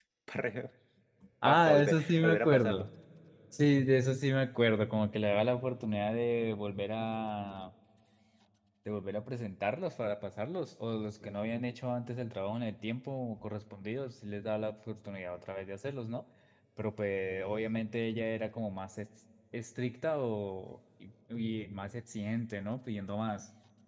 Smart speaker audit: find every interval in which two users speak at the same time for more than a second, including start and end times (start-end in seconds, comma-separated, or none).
1.4-2.9